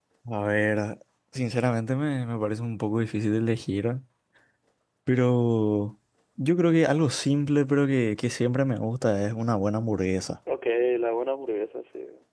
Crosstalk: none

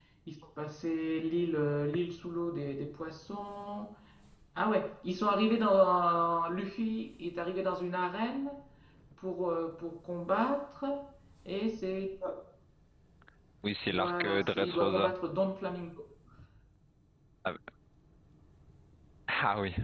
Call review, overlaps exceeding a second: present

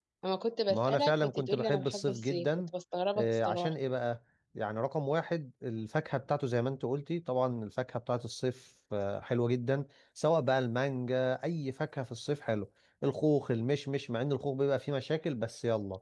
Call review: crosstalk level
present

